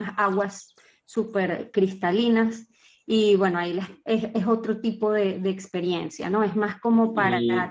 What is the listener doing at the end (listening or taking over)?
listening